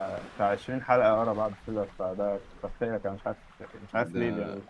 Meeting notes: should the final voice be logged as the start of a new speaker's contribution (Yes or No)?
Yes